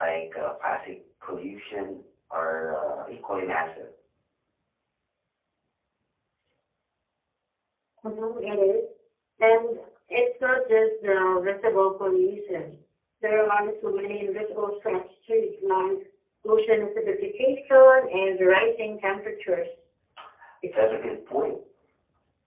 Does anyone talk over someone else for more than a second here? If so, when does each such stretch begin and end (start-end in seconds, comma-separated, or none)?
none